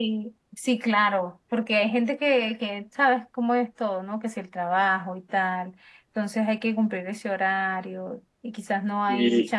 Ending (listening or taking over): listening